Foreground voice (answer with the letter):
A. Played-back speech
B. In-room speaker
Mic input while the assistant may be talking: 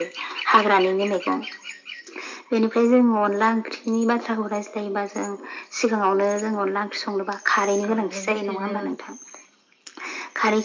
A